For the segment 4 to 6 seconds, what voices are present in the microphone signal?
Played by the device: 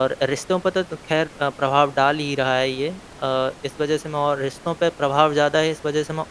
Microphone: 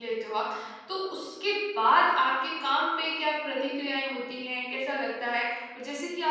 user only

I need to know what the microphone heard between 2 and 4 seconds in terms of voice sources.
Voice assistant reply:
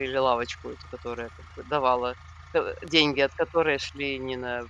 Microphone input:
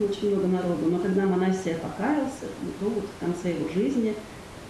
user only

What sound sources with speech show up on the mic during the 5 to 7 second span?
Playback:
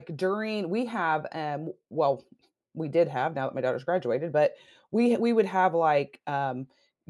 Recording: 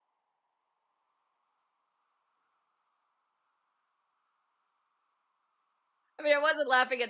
user only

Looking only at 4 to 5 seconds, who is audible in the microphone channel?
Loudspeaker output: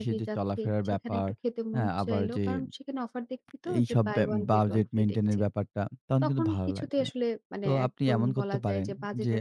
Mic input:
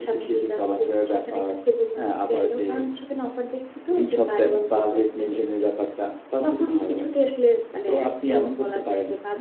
echo only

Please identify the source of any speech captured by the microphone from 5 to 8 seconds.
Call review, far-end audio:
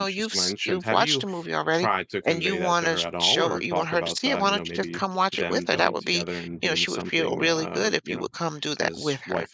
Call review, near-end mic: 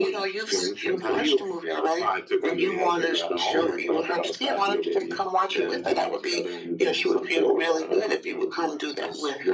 echo only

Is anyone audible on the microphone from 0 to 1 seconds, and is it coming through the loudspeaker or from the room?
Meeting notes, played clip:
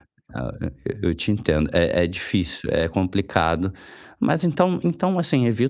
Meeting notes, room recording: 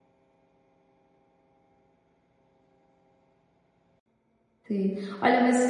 neither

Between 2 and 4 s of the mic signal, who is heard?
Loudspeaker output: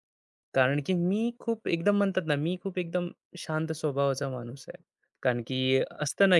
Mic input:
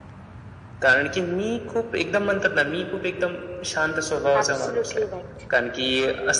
echo only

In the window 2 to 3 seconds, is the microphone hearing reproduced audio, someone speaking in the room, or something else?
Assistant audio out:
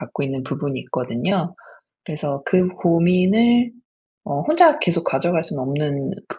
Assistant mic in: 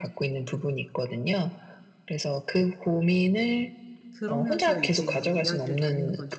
echo only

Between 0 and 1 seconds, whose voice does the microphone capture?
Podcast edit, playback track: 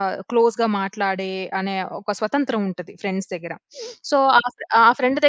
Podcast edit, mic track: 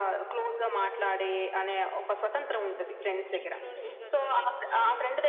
echo only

